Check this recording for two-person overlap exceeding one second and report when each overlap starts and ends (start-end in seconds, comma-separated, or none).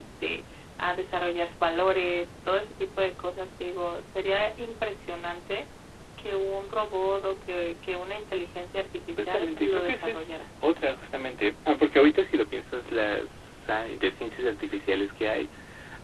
9.2-10.4